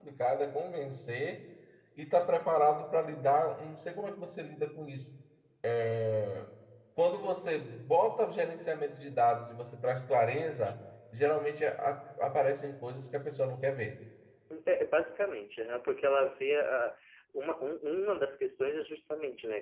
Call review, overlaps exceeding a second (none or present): none